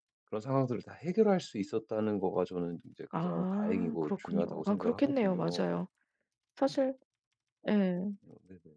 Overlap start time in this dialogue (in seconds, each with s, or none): 3.1 s